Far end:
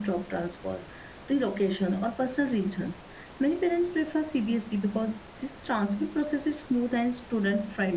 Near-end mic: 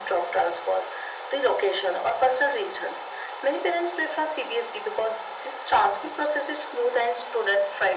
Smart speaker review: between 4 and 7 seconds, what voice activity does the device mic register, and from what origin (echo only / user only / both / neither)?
echo only